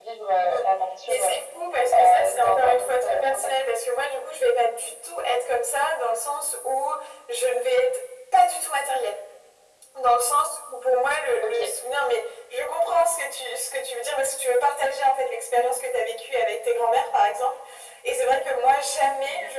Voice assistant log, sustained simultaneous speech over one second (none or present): present